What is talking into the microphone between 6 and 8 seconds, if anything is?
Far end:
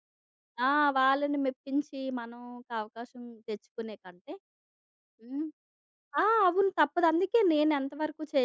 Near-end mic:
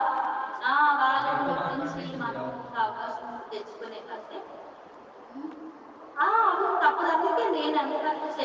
echo only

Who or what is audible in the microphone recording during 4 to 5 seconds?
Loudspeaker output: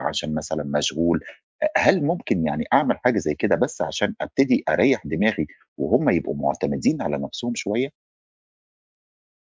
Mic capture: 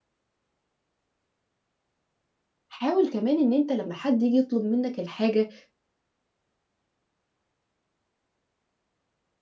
user only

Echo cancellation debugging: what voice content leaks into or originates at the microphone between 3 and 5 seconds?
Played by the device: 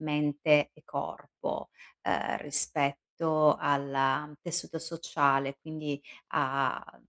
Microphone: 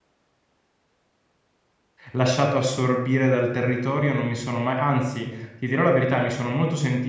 user only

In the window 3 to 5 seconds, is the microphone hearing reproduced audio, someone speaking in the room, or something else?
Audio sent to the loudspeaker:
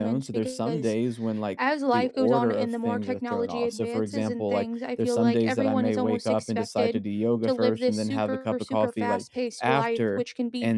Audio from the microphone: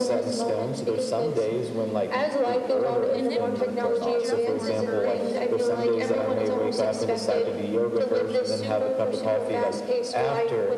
both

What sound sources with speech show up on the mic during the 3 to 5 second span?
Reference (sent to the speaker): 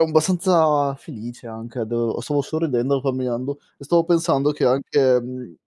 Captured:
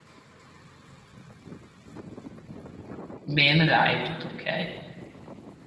user only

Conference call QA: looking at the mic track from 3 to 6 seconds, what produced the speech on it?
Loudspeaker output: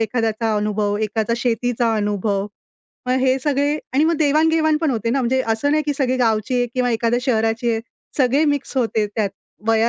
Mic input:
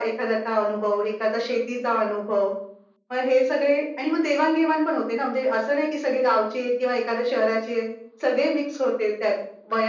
echo only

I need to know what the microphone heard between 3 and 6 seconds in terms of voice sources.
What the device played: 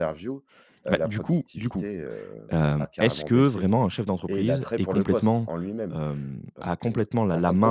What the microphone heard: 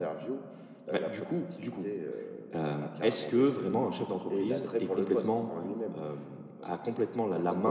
echo only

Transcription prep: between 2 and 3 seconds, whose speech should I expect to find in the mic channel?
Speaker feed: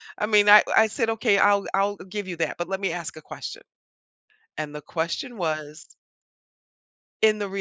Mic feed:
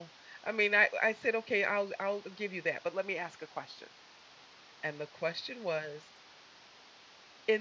echo only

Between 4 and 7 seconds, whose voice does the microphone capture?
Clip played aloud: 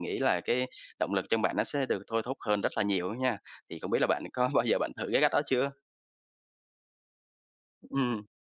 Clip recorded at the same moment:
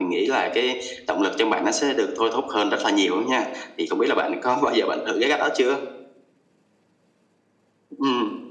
echo only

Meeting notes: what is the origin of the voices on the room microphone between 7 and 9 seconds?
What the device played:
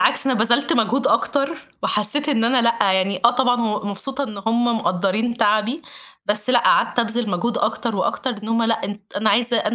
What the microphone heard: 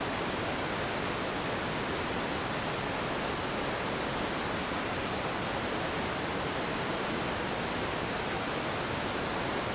neither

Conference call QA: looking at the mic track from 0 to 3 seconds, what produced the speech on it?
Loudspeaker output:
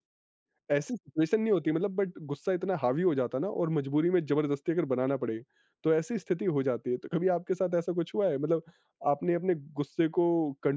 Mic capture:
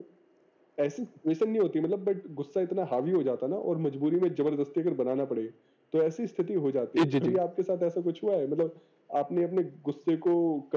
echo only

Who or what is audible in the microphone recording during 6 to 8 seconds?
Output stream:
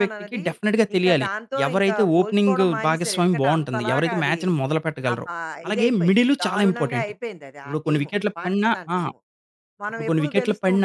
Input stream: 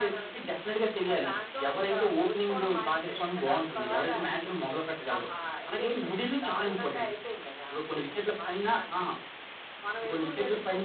echo only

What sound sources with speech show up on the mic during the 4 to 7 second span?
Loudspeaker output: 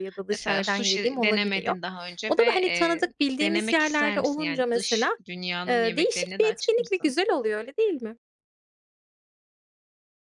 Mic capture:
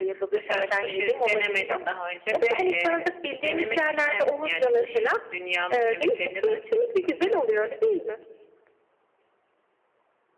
echo only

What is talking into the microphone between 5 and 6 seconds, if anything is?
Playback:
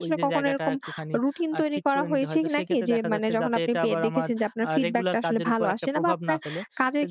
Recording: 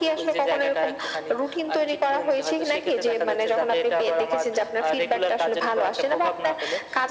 echo only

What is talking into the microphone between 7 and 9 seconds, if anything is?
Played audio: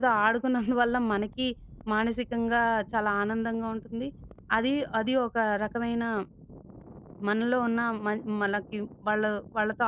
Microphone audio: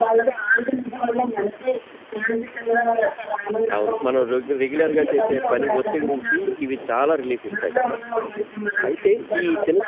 both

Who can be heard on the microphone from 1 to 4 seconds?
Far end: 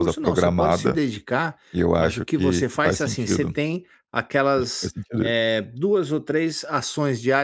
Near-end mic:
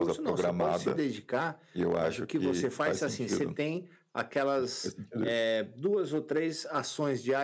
echo only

